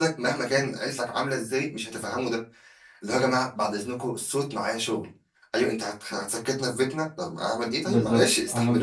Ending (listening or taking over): taking over